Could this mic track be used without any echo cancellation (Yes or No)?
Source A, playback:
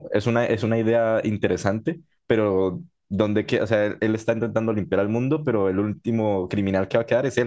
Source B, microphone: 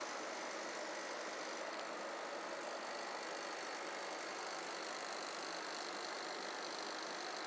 Yes